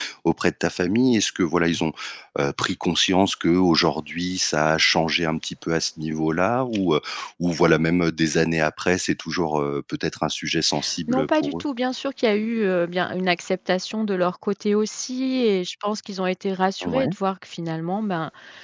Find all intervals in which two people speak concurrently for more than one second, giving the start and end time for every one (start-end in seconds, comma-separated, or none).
none